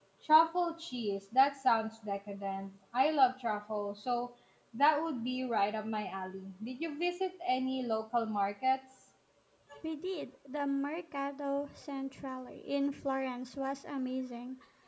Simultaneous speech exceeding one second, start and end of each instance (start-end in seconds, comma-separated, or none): none